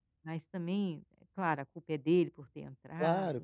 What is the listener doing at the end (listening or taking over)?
taking over